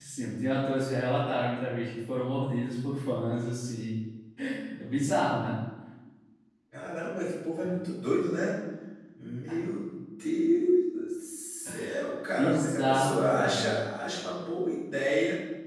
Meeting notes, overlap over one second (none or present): present